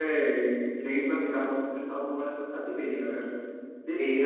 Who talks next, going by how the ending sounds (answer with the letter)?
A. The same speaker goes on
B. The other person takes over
B